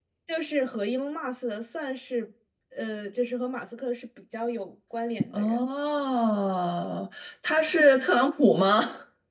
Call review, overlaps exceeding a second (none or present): none